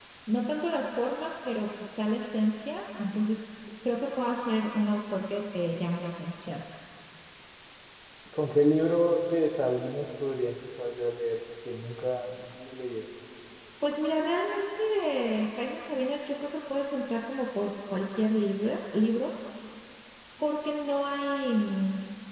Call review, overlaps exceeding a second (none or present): none